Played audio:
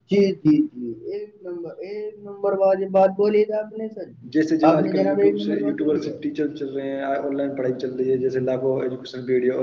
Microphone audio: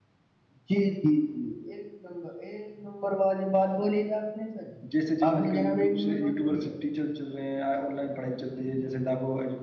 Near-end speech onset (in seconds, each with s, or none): none